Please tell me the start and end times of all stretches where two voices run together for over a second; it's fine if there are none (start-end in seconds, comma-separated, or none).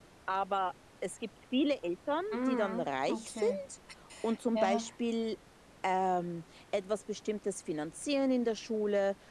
2.3-3.6